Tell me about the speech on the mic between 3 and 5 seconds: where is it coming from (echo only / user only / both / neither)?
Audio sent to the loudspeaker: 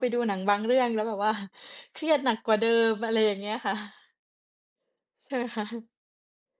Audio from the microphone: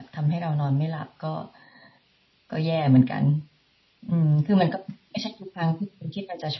user only